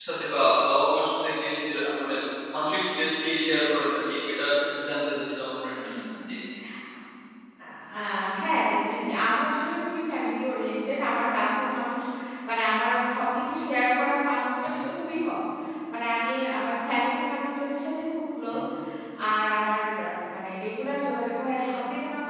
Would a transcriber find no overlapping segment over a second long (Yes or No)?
Yes